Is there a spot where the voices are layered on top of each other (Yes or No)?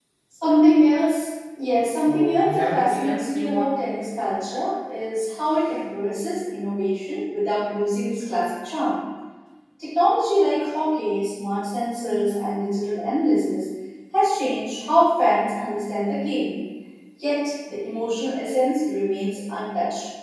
Yes